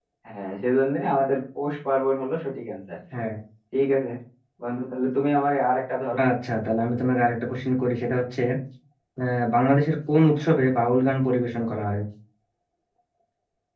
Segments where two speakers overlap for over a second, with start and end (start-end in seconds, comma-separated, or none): none